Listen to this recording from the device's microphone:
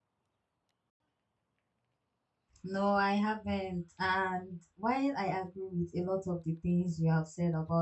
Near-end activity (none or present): present